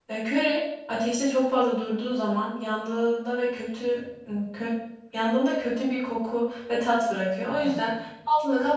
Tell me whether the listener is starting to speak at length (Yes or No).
No